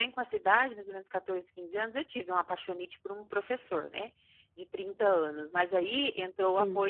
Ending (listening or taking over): listening